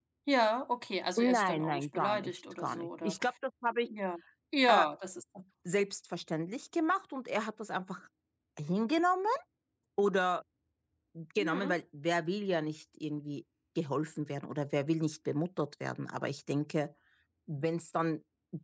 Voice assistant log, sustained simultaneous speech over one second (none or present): present